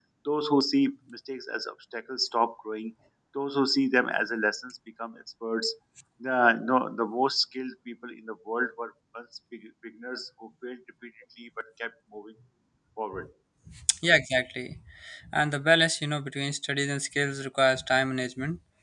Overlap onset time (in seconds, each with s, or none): none